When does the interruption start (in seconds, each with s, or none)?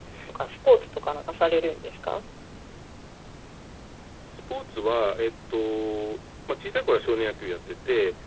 none